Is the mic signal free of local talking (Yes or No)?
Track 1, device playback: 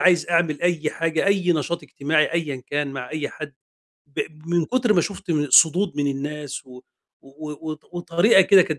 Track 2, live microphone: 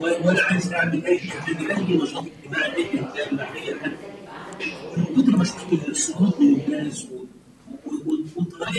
No